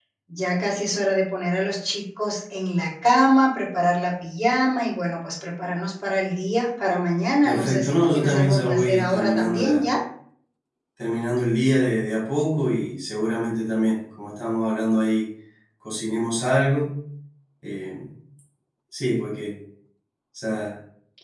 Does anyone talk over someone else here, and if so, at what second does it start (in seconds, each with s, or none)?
7.4 s